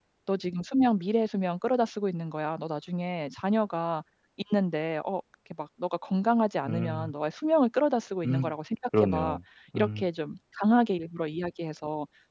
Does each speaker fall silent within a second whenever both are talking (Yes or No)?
Yes